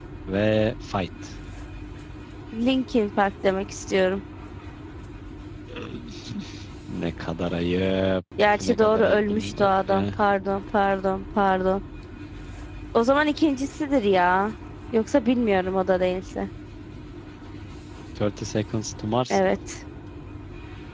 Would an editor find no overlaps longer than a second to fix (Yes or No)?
No